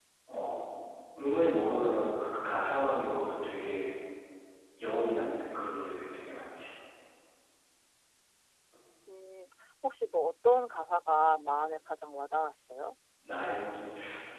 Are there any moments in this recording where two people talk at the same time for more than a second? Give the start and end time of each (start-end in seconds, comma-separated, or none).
none